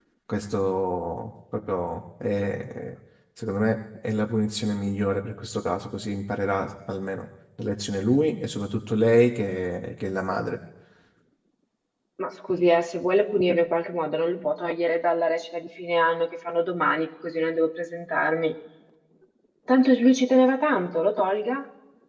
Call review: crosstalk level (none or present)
none